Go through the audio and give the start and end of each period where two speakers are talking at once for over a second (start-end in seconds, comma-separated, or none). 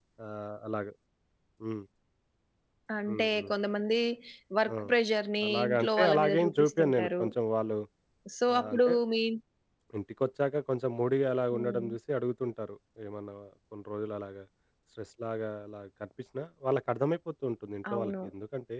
5.4-7.2